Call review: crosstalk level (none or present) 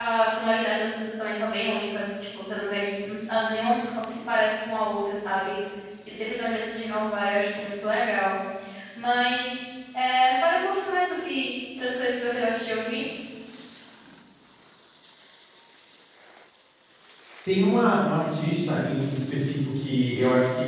none